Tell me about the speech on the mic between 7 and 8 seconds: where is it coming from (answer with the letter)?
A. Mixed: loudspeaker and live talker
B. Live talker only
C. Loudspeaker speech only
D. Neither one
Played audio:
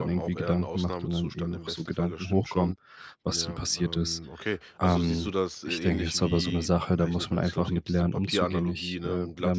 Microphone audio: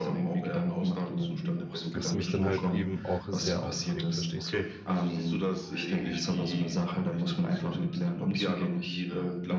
C